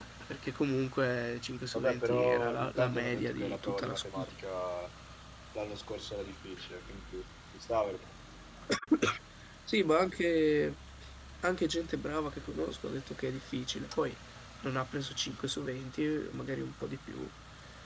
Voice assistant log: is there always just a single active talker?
No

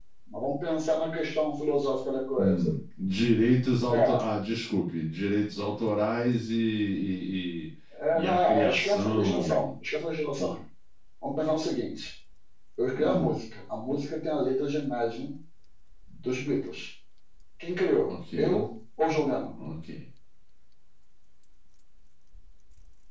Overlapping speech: Yes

